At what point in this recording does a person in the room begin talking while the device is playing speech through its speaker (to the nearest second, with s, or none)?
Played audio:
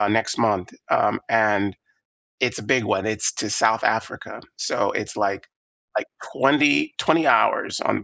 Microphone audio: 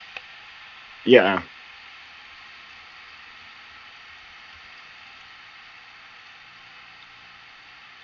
1 s